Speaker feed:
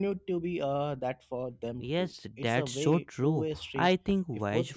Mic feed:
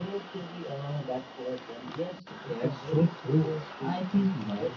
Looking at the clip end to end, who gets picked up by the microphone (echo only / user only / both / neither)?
echo only